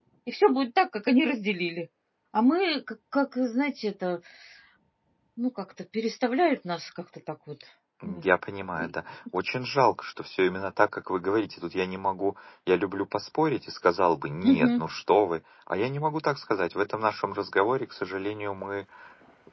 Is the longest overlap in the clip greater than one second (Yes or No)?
No